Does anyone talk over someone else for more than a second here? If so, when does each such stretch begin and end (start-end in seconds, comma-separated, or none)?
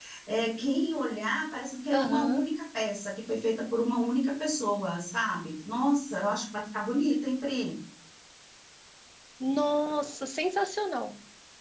none